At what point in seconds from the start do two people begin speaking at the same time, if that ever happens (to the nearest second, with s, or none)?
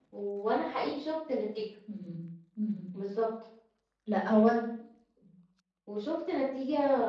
none